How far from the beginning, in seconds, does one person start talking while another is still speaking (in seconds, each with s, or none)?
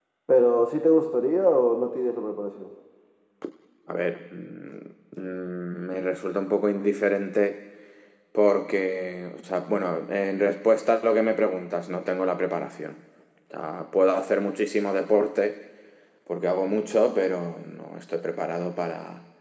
none